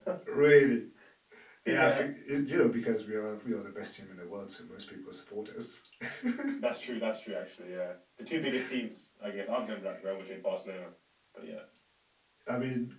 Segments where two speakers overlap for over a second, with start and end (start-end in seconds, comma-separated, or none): none